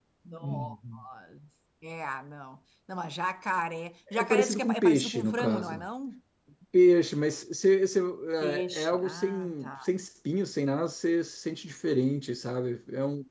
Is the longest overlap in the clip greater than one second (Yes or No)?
Yes